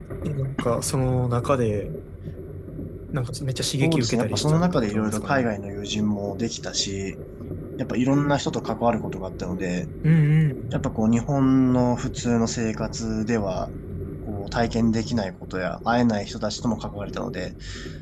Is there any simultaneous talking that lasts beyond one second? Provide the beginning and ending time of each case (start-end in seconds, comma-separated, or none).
3.8-5.5